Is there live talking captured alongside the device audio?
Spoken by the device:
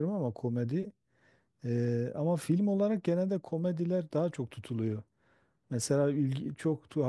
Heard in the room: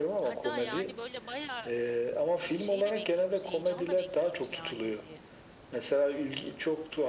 Yes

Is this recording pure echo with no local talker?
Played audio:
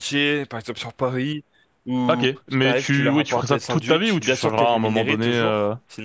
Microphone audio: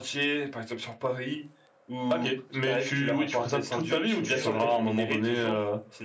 No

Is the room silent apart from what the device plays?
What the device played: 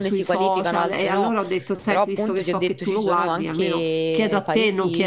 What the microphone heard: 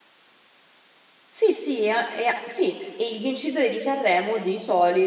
No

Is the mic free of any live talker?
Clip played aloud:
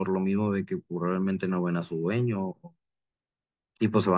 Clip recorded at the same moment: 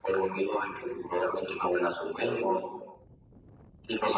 Yes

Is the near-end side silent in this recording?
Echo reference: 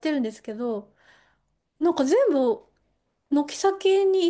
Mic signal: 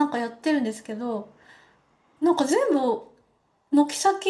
Yes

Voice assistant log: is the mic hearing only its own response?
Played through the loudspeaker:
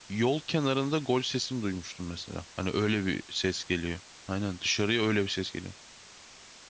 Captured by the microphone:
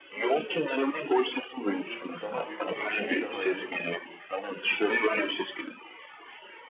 No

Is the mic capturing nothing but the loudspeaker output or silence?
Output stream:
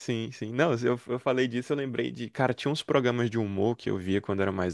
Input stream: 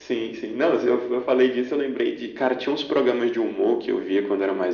Yes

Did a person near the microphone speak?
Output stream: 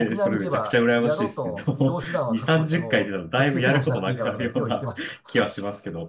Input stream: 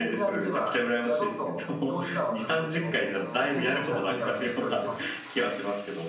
Yes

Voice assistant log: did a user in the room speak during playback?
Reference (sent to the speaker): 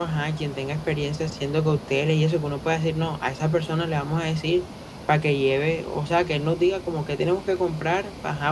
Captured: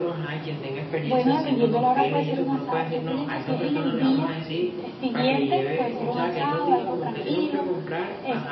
Yes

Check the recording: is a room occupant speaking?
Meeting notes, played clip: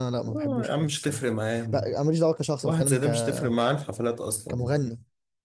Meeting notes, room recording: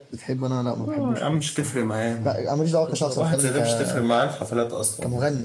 Yes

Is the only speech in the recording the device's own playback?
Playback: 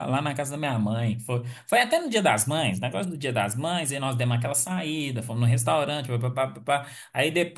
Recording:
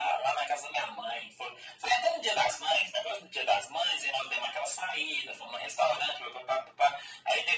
Yes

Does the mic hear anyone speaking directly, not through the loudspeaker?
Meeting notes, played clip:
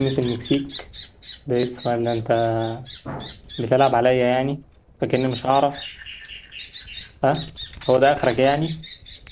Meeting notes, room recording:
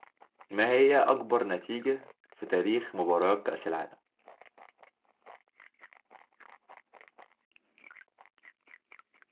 Yes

